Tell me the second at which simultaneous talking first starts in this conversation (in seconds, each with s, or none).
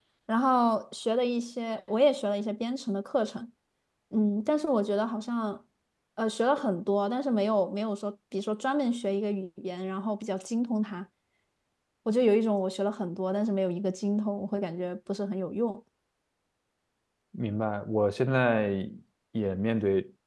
none